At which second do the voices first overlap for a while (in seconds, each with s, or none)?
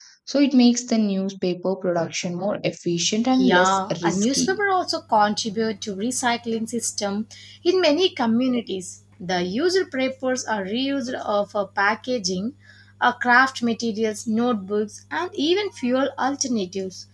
3.3 s